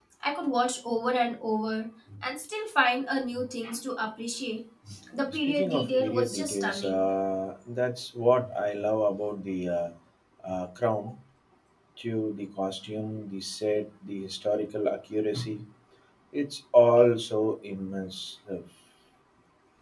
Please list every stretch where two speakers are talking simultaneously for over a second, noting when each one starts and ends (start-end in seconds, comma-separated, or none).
5.5-7.1